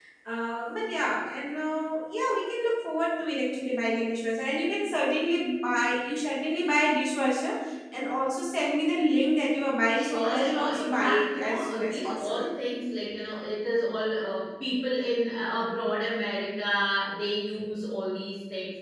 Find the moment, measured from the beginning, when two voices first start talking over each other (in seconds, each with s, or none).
9.9 s